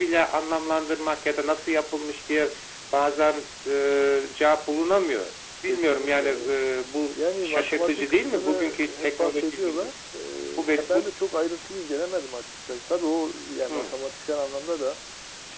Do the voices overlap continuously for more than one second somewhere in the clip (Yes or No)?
Yes